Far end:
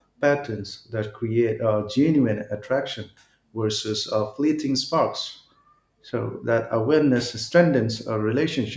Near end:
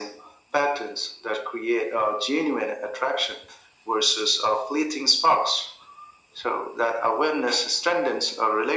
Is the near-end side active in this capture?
No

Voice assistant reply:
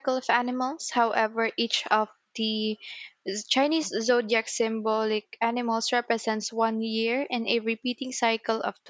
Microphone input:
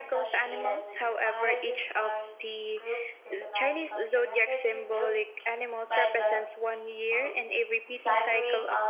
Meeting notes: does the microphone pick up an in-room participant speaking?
Yes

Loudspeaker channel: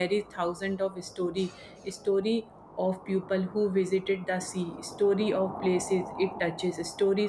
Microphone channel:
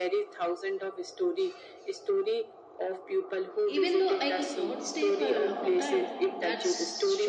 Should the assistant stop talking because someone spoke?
Yes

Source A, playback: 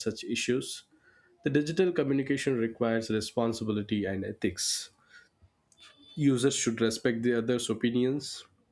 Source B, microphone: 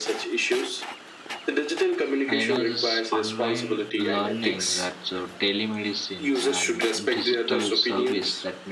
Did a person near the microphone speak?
Yes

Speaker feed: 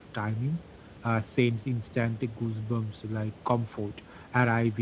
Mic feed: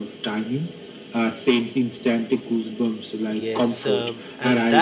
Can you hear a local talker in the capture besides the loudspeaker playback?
Yes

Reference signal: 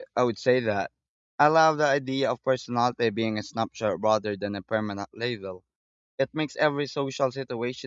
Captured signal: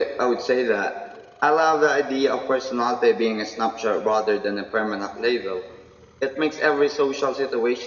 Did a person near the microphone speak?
No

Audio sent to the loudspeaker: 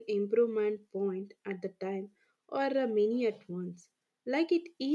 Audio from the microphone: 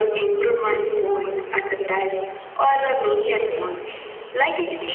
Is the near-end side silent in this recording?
No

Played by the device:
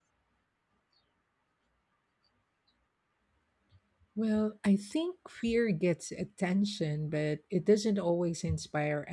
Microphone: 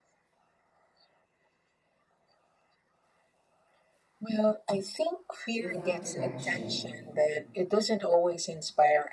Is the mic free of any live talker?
No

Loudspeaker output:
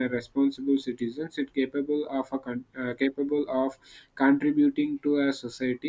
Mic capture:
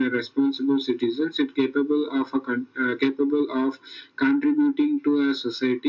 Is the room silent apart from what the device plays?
Yes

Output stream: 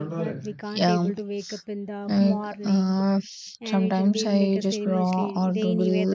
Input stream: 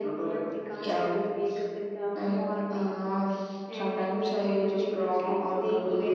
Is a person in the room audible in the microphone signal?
No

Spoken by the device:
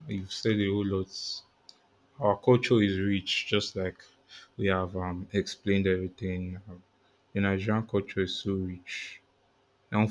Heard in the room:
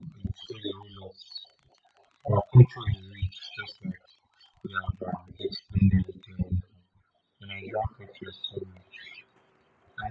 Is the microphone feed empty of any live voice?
Yes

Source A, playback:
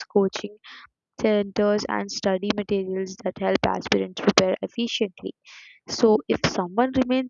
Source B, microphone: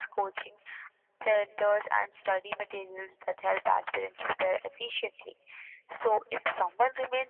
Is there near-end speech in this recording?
No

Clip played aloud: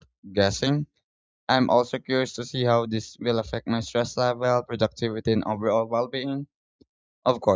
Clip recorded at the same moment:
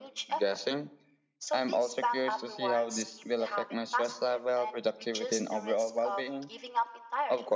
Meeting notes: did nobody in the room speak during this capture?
No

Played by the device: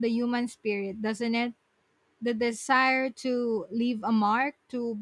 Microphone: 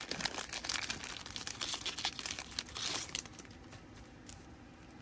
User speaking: No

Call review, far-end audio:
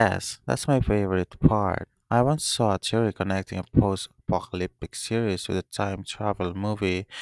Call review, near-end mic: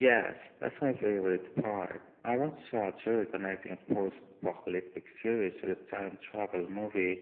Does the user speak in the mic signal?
No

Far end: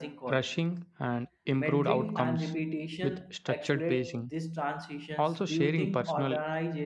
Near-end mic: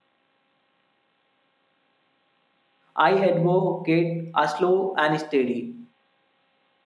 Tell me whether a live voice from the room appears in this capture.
Yes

